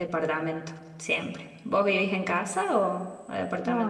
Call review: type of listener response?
taking over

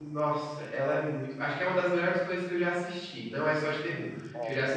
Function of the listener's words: listening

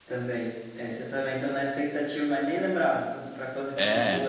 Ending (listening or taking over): taking over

